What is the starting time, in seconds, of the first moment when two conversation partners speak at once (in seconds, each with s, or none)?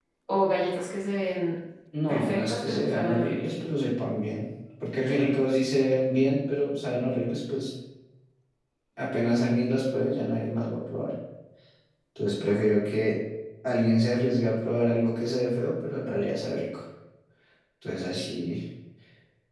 2.1 s